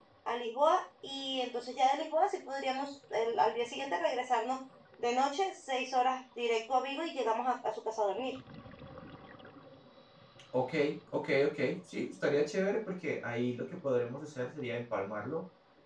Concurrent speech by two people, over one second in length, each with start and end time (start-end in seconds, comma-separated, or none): none